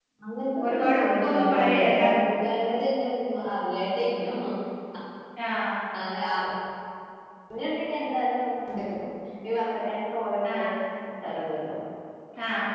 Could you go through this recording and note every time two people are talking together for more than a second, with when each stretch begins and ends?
0.6-2.0

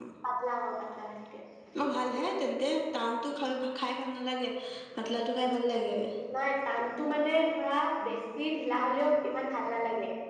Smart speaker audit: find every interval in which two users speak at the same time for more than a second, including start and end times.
none

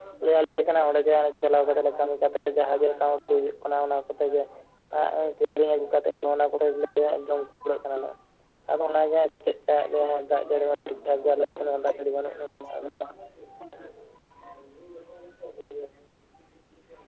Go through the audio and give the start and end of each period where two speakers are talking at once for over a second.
none

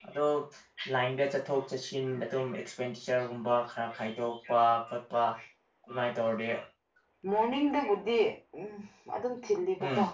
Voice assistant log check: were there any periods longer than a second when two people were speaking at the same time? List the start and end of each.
none

